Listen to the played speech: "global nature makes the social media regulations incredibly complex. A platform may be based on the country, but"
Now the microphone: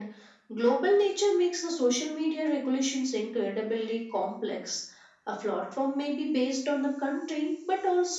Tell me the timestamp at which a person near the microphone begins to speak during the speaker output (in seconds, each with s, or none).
none